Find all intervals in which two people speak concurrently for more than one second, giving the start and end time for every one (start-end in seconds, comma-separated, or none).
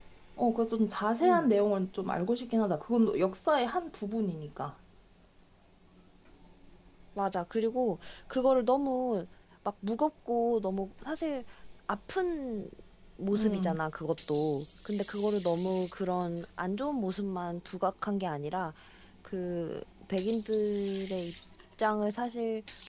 none